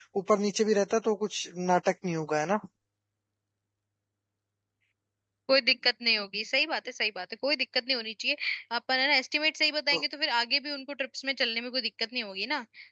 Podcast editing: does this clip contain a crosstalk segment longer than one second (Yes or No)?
No